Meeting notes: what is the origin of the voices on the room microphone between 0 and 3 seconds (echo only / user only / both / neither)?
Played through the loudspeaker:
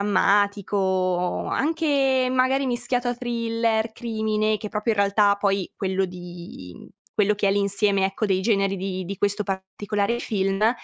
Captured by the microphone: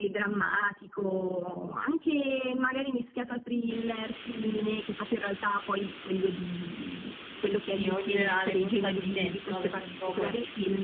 echo only